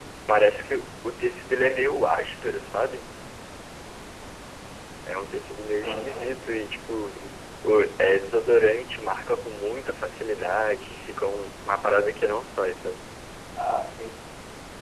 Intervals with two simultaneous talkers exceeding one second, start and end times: none

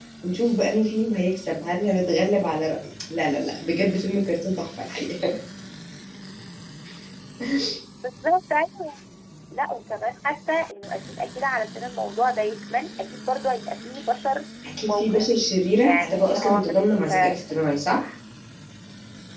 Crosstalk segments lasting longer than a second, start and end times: 14.9-17.1

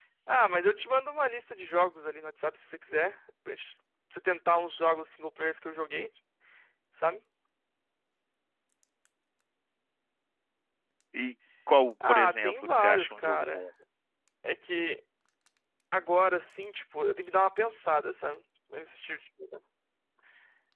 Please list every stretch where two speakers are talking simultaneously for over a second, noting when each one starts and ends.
12.1-13.7

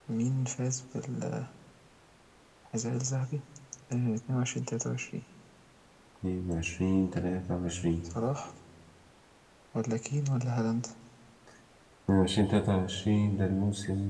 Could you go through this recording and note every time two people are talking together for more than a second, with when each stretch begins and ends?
none

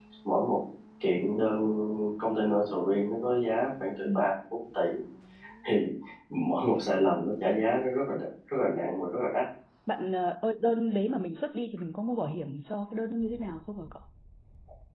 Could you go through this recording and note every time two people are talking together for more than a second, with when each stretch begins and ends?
none

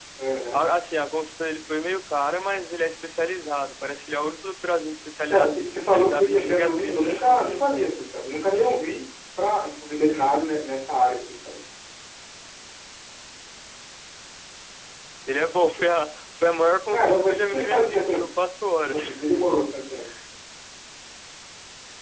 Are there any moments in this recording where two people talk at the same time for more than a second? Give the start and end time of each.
5.3-7.7, 16.9-18.3

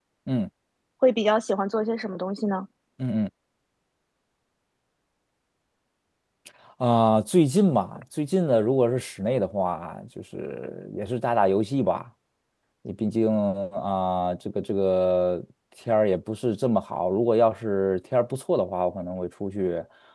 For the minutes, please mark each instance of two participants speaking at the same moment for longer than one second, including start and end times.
none

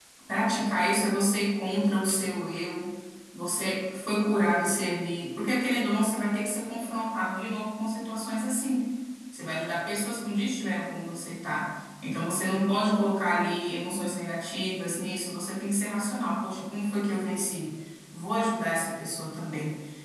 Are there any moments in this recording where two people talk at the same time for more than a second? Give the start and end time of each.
none

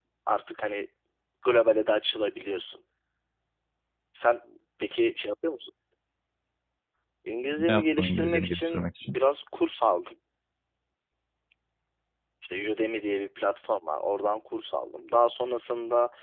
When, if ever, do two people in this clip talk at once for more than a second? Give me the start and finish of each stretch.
7.6-9.2

